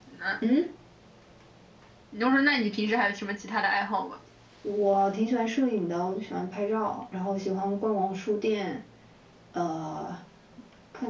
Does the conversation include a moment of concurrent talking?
No

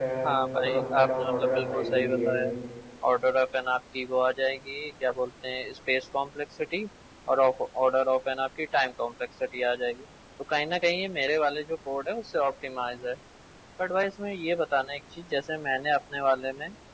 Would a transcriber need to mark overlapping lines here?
Yes, from 0.6 s

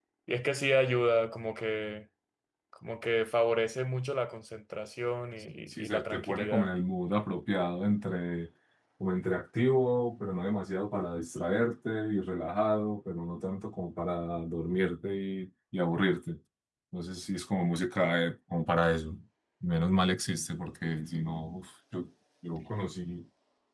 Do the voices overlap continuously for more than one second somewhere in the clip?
Yes, from 5.5 s

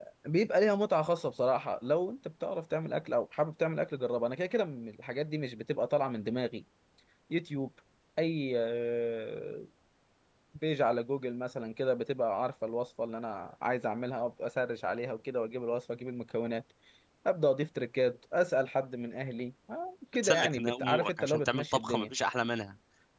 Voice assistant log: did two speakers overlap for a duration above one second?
Yes, from 20.2 s

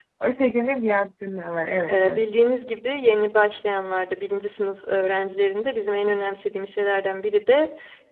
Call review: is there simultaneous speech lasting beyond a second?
No

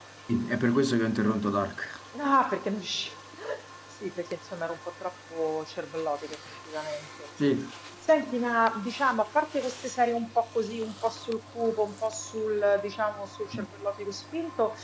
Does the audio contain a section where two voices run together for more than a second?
No

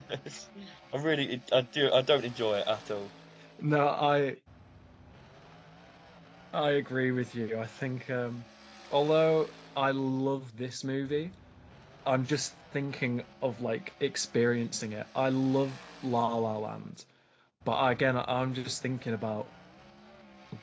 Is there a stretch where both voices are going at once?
No

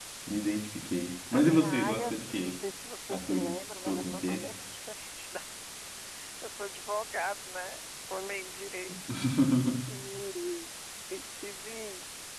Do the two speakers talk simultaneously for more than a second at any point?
Yes, from 1.3 s

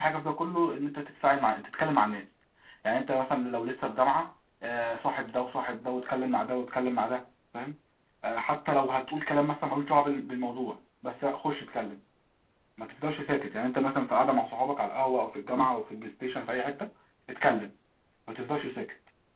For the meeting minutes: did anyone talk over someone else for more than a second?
No

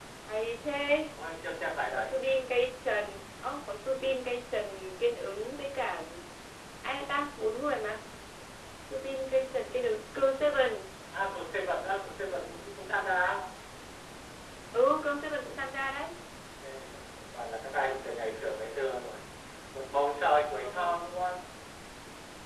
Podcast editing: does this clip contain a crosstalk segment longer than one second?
No

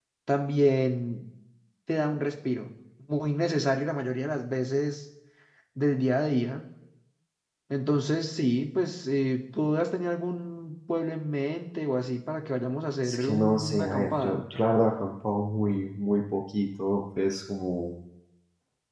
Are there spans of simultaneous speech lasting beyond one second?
Yes, from 13.0 s

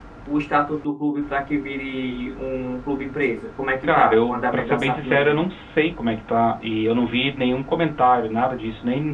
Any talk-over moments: Yes, from 3.8 s

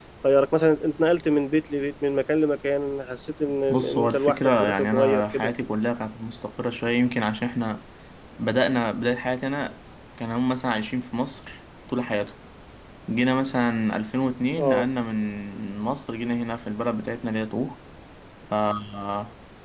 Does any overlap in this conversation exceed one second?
Yes, from 3.7 s

